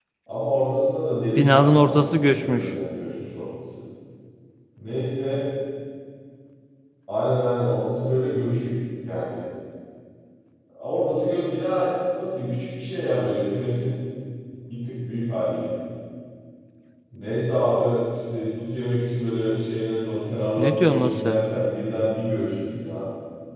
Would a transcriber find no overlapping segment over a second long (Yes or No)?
No